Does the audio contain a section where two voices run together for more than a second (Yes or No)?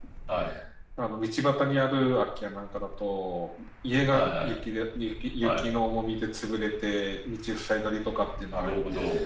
No